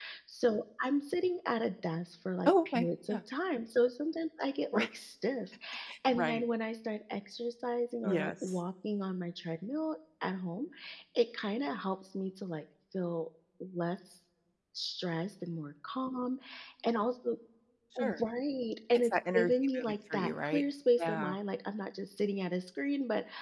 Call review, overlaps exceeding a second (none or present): present